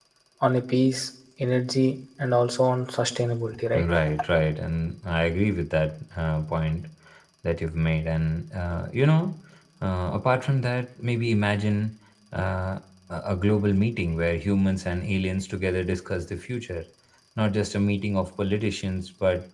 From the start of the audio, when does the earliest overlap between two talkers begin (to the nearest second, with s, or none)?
none